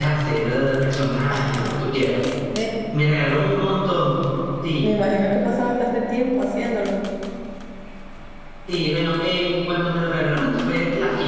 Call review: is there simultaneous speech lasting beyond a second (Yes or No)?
No